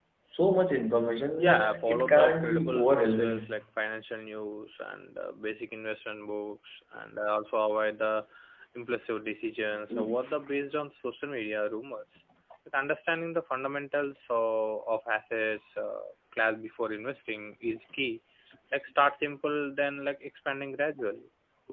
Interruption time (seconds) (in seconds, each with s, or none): 1.4 s